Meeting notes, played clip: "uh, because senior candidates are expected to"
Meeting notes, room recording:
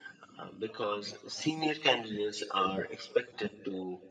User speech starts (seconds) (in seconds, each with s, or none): none